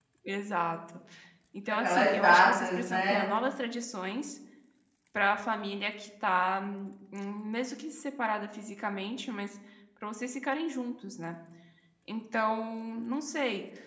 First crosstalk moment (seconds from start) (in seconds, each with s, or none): 1.7 s